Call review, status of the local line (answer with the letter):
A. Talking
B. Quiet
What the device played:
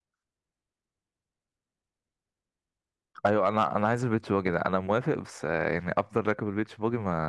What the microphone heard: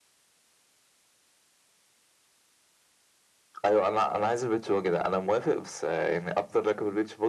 B